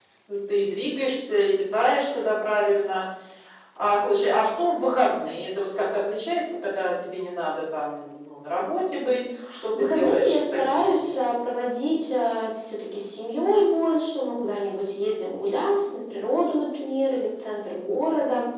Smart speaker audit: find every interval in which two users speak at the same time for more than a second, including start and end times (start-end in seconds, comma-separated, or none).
9.8-11.2